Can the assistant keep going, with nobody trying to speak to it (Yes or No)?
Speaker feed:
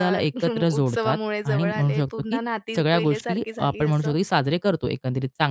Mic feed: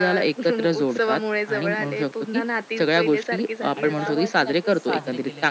No